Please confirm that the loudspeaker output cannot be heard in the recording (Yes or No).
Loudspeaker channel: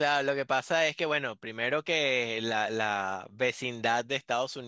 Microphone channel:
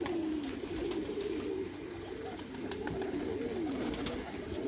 Yes